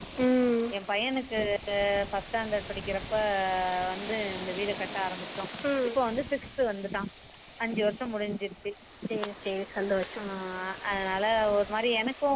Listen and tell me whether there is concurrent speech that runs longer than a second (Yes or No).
No